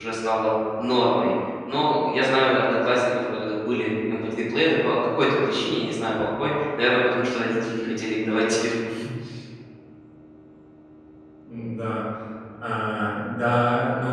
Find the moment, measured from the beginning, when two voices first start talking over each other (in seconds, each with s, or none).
none